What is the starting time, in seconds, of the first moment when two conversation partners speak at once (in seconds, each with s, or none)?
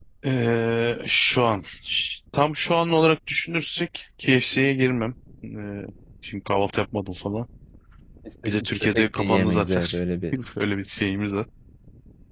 8.4 s